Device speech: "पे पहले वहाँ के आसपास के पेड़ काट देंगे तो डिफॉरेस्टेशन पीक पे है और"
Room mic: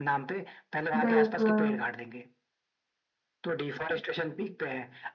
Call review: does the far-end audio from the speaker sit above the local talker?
No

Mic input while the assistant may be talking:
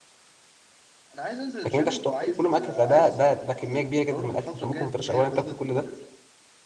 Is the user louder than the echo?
Yes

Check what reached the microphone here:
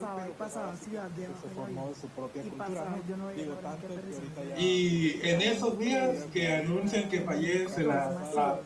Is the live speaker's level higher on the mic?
Yes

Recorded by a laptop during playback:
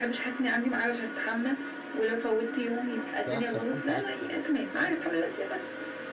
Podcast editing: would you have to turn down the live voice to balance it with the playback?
No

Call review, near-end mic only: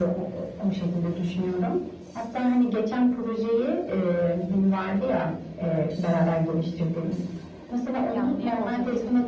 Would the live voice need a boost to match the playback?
Yes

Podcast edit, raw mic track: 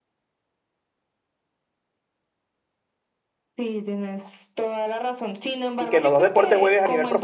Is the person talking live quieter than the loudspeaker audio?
No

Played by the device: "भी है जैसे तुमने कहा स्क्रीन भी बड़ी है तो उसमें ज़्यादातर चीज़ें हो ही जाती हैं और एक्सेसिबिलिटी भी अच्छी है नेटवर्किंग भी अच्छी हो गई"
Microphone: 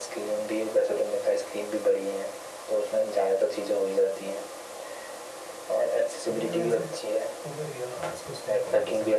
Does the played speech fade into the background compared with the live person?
No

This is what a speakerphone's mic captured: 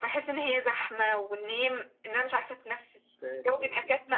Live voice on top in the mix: No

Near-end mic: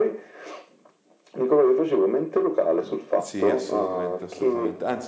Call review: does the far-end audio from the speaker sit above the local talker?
Yes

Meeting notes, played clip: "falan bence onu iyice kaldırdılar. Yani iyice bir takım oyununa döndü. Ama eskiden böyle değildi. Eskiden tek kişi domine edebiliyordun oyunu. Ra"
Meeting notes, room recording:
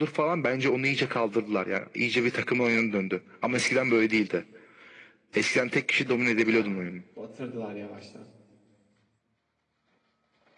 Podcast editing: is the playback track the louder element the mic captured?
Yes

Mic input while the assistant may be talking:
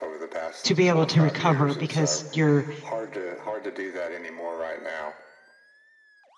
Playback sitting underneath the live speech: Yes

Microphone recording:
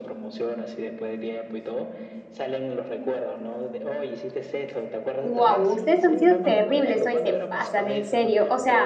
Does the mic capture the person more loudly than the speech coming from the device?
Yes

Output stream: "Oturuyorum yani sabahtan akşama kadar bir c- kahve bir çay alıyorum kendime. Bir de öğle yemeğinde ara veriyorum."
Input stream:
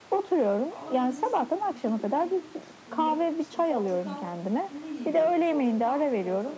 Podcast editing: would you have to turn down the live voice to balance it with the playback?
No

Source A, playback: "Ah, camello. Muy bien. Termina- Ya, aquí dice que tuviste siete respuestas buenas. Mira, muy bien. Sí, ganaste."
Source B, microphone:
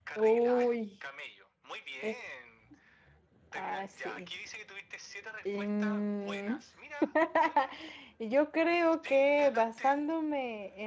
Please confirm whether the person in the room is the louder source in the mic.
Yes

